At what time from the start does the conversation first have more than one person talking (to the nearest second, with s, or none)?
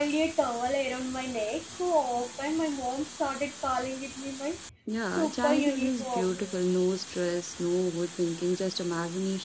5 s